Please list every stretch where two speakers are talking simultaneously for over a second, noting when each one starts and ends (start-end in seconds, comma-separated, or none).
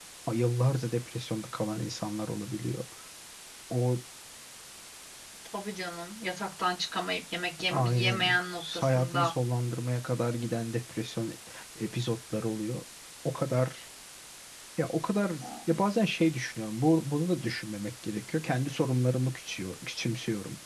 7.7-9.3